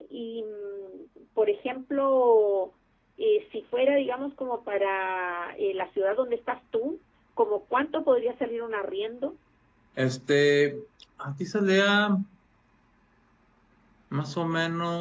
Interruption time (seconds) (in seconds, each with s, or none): none